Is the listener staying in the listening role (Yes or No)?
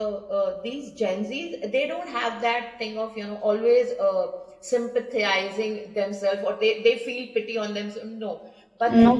Yes